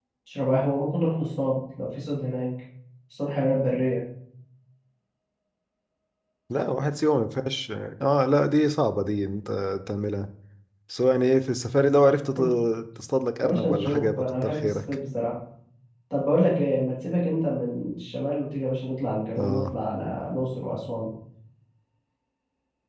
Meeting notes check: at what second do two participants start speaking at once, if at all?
13 s

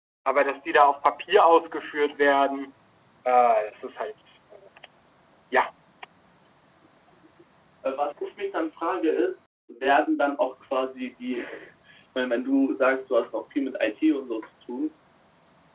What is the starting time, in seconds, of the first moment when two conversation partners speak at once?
none

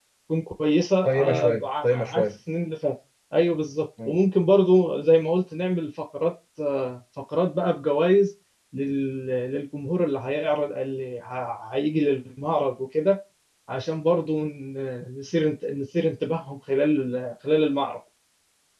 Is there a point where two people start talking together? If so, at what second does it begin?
1 s

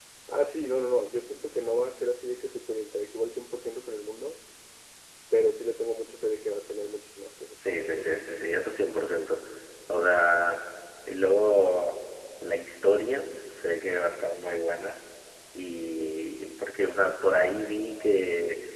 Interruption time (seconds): 8 s

